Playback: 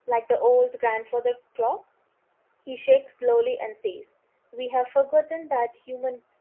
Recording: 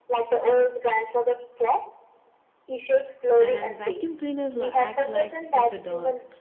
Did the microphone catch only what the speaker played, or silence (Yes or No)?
No